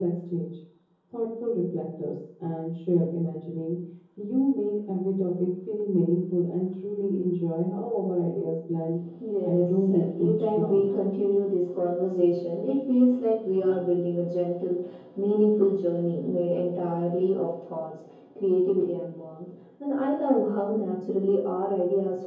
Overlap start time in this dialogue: 9.4 s

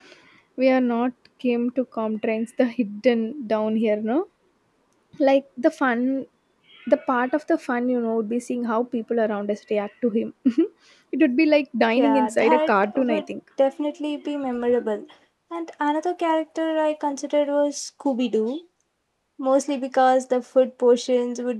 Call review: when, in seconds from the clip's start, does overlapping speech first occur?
12.0 s

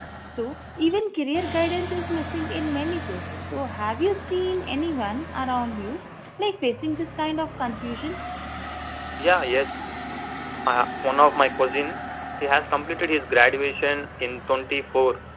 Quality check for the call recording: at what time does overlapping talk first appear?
none

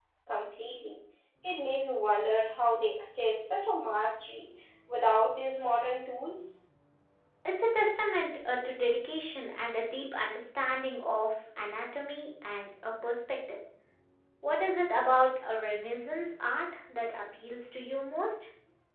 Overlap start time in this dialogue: none

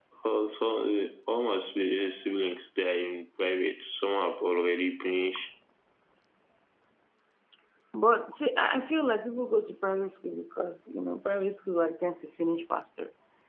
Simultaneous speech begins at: none

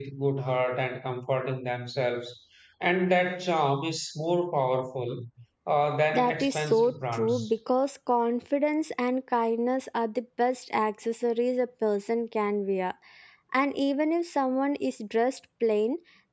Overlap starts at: 6.1 s

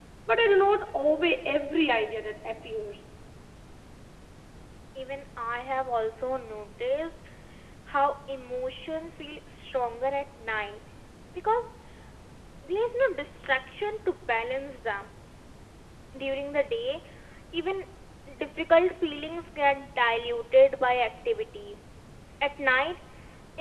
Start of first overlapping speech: none

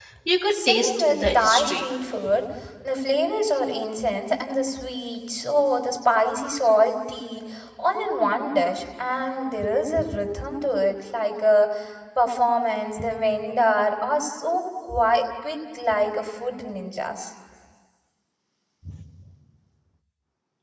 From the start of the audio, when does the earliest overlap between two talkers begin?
0.5 s

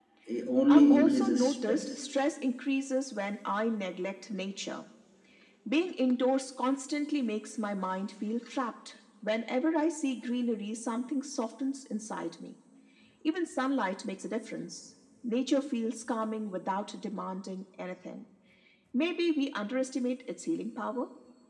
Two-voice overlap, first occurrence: 0.7 s

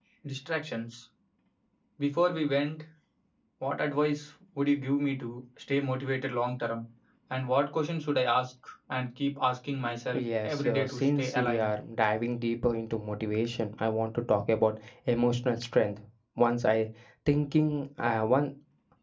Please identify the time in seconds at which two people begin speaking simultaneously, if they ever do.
10.1 s

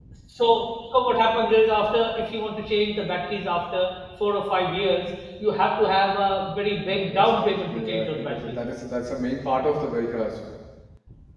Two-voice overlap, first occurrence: 6.9 s

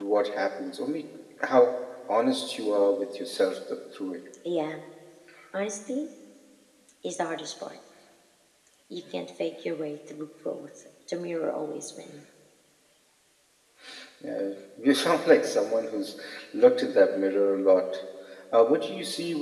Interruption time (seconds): none

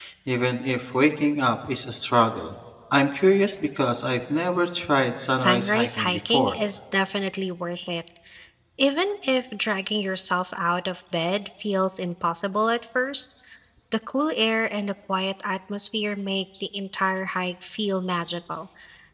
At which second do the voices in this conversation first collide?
5.3 s

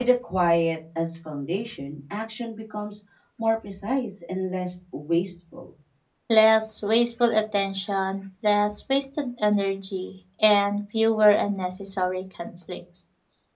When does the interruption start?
none

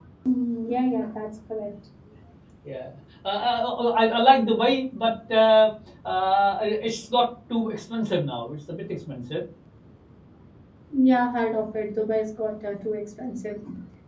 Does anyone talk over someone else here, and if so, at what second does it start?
none

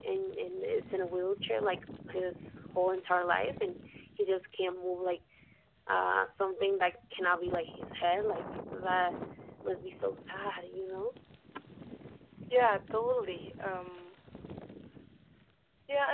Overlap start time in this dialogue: none

